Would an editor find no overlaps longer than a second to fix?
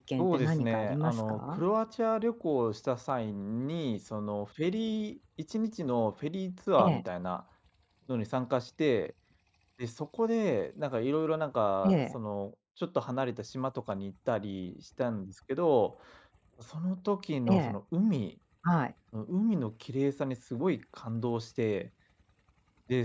No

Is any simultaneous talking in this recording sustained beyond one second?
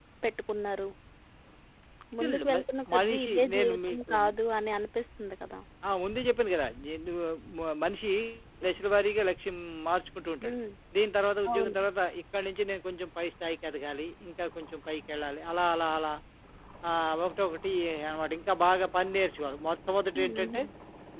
Yes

